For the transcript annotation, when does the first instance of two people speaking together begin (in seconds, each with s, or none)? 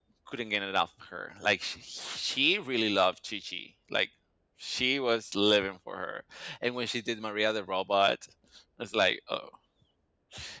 none